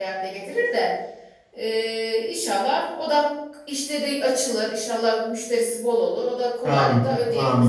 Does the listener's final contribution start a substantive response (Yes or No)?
Yes